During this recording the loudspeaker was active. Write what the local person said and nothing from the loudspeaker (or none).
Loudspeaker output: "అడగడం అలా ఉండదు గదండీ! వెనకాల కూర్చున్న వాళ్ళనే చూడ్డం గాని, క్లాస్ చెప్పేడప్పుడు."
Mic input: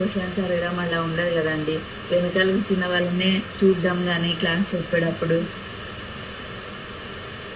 none